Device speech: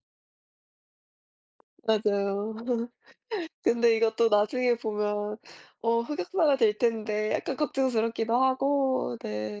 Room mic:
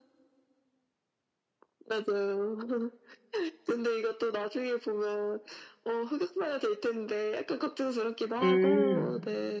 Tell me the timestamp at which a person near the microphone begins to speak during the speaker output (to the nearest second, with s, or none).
8 s